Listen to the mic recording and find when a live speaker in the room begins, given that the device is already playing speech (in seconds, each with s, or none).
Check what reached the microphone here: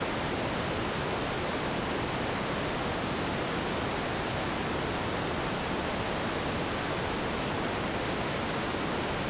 none